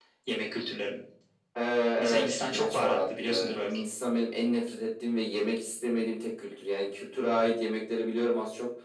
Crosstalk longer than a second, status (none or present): present